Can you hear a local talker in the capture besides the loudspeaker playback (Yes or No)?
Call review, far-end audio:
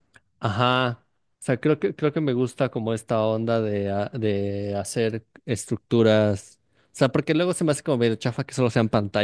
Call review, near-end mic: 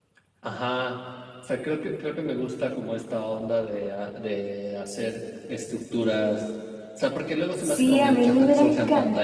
Yes